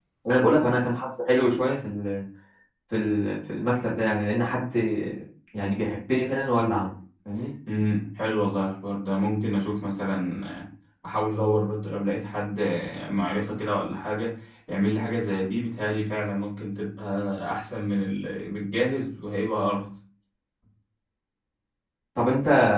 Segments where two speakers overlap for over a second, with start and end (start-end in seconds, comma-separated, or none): none